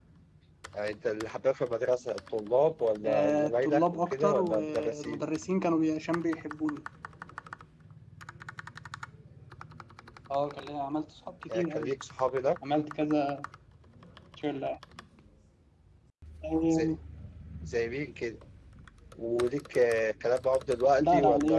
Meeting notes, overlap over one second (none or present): present